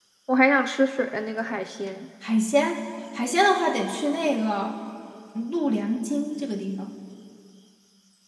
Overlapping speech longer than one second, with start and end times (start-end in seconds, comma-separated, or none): none